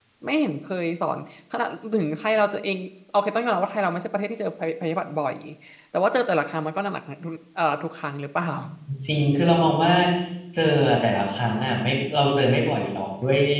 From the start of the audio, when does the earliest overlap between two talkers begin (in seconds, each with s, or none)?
none